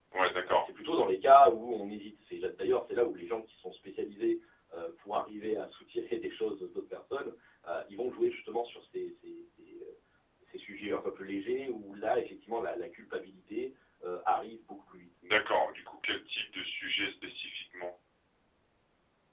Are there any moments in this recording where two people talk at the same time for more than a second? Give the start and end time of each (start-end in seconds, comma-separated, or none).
none